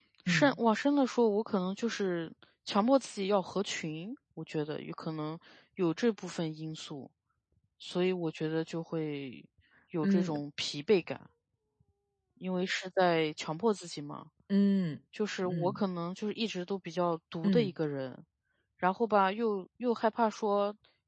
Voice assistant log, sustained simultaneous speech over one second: none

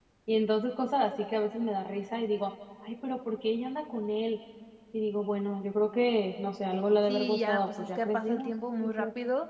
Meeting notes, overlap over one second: present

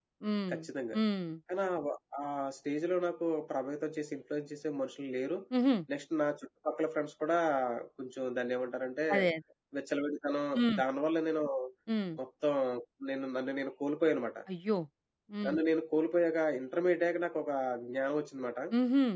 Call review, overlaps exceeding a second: none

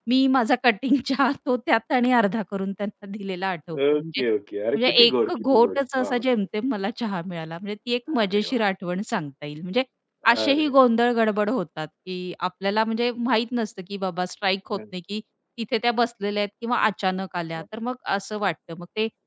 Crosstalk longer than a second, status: present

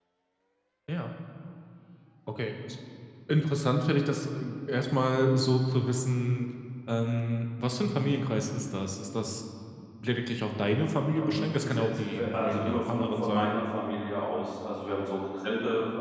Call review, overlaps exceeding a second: present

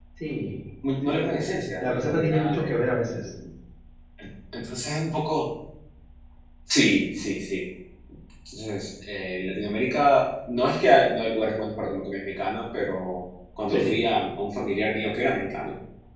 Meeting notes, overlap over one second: present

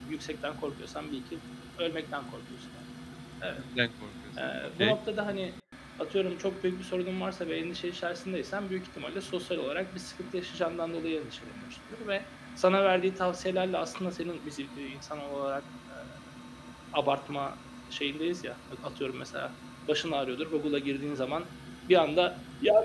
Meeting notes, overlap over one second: none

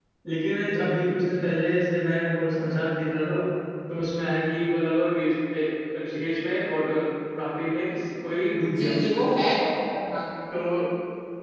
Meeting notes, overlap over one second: none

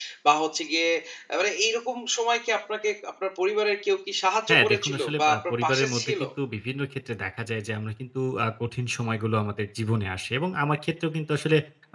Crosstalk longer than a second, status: present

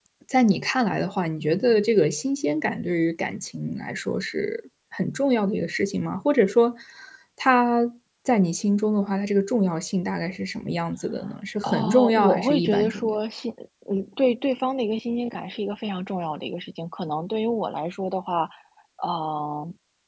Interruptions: present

